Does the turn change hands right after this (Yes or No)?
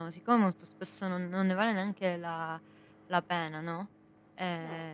No